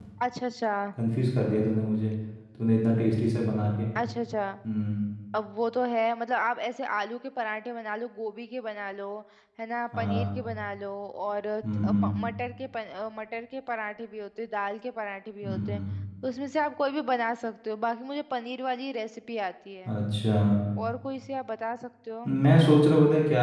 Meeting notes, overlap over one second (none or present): none